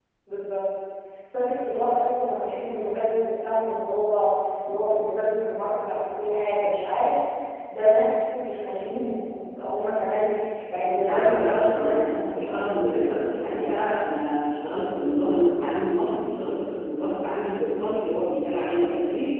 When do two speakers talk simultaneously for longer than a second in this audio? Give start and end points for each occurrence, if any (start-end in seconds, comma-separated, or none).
10.8-12.8